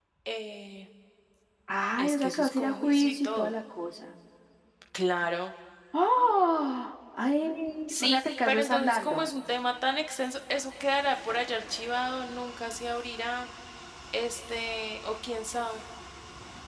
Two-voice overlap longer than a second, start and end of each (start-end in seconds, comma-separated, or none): 2.0-3.5, 7.9-9.3